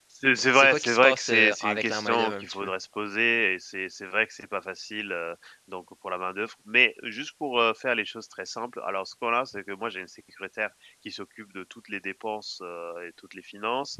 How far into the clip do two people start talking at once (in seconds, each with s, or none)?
0.5 s